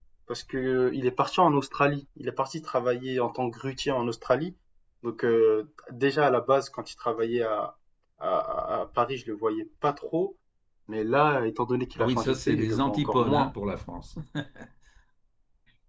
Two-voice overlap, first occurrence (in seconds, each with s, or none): 12.0 s